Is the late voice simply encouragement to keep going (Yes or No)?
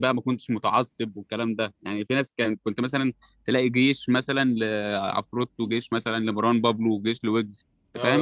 No